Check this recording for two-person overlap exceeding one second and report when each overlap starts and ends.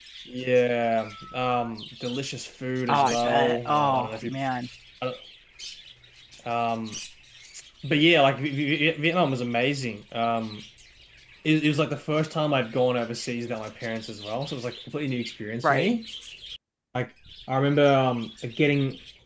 2.9-4.3

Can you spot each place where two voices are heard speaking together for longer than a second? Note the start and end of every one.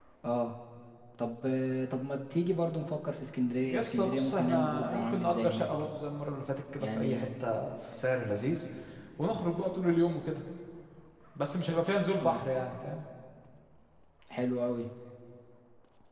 3.7-5.7

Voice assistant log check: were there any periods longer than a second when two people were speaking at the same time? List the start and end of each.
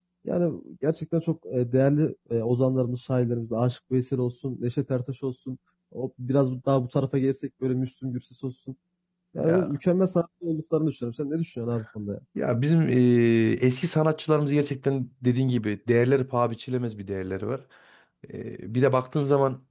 none

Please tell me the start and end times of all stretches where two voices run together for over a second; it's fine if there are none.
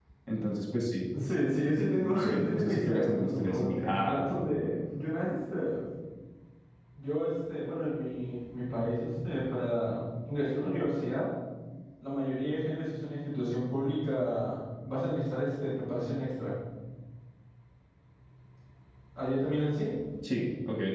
2.0-4.6

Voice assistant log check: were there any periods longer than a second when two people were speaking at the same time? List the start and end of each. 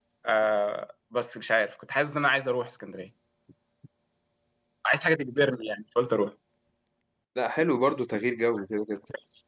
none

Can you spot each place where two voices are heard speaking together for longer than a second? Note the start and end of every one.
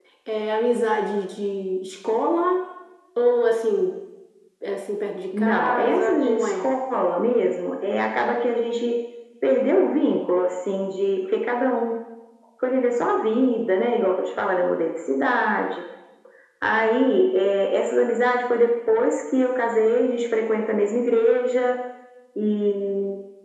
5.3-6.7

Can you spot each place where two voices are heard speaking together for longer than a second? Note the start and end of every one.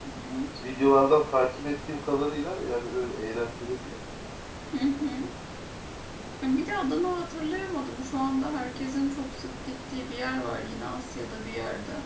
none

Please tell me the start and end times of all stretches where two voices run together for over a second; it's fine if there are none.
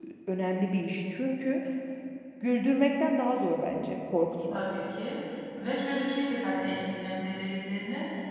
none

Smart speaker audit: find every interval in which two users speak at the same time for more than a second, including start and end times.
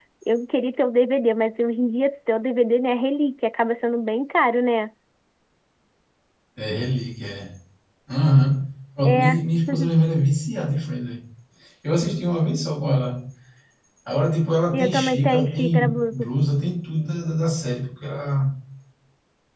14.7-16.3

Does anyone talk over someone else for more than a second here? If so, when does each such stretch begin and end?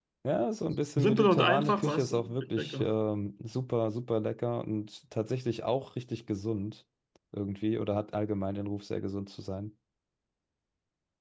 1.0-2.9

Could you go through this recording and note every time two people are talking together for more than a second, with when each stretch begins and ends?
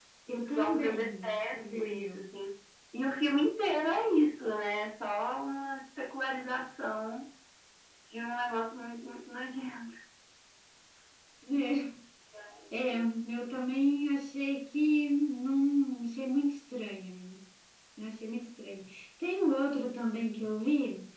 0.6-2.2

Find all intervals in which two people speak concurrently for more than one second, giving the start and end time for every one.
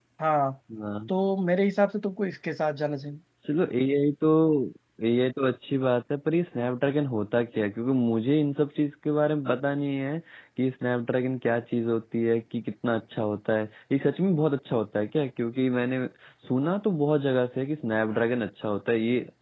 none

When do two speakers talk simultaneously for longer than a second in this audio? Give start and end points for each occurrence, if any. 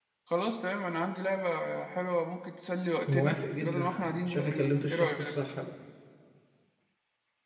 3.1-5.4

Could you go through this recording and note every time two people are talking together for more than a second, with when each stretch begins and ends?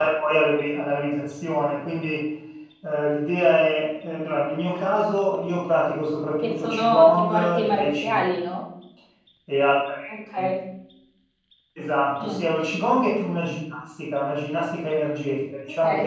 6.4-8.2

